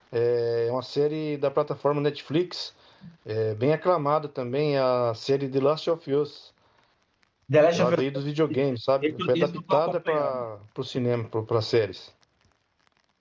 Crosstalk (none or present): present